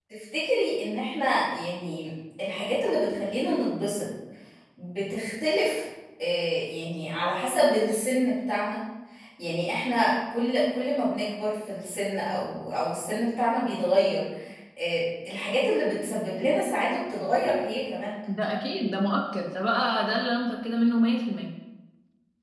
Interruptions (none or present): none